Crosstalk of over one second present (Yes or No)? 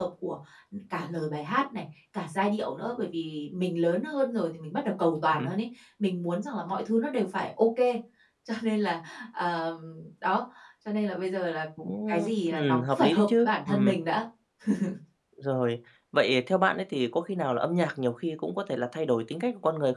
Yes